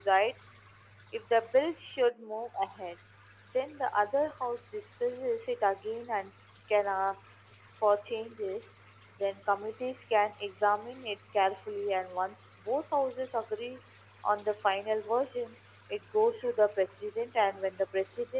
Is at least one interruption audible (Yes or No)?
No